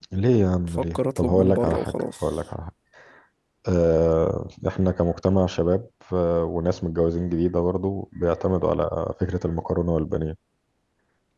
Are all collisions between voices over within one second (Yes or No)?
No